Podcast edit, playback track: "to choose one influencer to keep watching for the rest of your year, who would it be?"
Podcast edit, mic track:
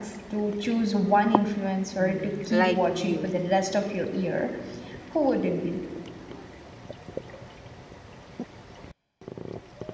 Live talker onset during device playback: 2.0 s

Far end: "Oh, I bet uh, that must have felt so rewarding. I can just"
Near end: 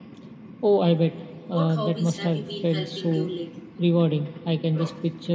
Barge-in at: 1.5 s

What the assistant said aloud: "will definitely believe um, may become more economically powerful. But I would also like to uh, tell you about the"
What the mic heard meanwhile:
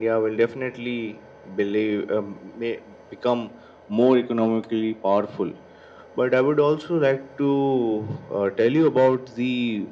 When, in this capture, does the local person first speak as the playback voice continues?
none

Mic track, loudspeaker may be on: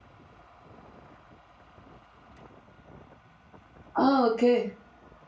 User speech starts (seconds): 4.0 s

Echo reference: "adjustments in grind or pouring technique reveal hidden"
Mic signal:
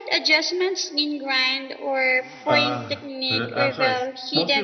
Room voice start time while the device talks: 2.4 s

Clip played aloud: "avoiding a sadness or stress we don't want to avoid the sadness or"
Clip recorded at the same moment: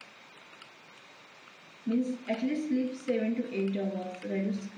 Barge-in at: 1.8 s

